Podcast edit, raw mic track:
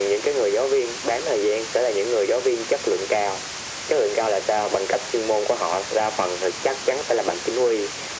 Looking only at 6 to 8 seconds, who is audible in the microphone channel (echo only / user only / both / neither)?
echo only